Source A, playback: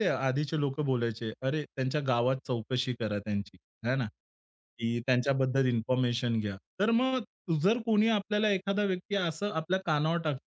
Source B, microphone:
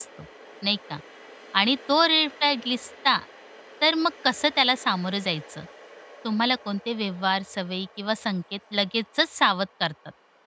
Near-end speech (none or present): present